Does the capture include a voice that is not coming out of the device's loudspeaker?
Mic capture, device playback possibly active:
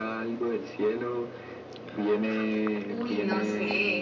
Yes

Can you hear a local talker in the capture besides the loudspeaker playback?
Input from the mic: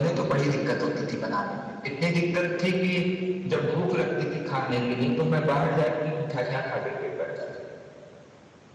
No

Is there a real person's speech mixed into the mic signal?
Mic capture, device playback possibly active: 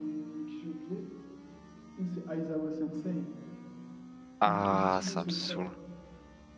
Yes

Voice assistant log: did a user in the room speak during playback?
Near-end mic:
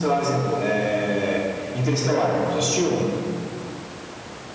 No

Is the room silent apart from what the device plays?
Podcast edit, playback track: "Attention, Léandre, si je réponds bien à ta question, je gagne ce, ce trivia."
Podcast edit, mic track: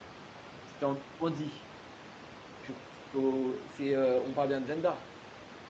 No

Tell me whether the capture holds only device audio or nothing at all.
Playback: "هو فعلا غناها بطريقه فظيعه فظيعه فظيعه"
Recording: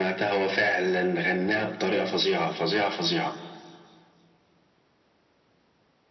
Yes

